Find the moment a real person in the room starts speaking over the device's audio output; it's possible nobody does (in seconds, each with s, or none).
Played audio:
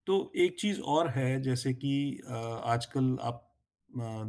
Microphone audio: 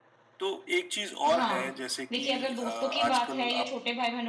1.3 s